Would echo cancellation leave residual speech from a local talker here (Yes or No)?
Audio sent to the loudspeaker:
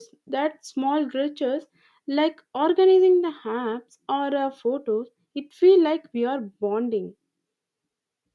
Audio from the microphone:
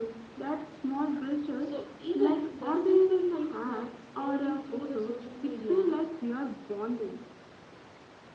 Yes